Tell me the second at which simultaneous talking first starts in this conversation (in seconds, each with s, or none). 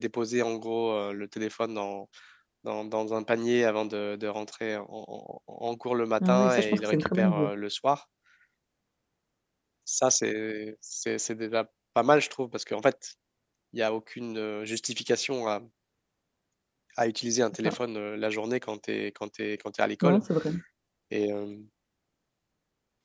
6.2 s